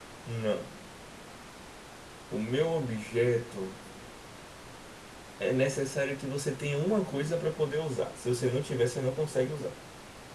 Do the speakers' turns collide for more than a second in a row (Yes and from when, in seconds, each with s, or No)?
No